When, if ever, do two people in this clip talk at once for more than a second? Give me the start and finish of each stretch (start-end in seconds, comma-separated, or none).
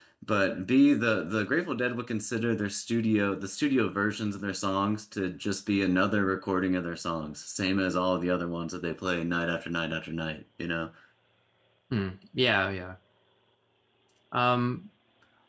none